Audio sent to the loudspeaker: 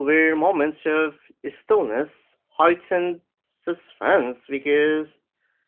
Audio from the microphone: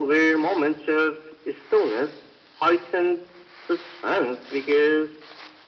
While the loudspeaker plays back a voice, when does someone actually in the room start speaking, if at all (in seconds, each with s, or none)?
none